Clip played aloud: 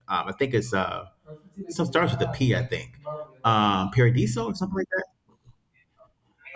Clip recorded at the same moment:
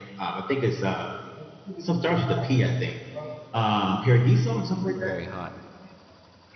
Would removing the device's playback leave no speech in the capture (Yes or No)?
No